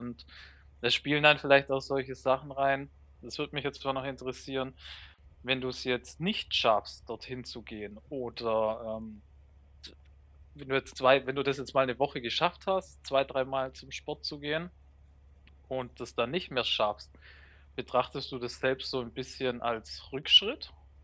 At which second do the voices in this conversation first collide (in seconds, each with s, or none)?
none